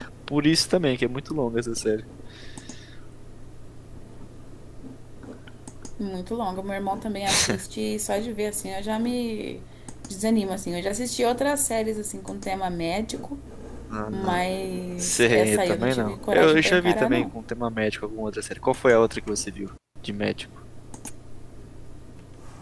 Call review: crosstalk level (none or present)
present